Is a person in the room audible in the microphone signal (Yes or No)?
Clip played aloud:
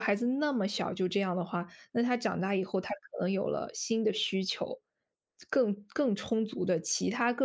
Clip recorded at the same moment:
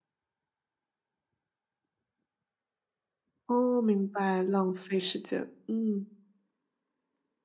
Yes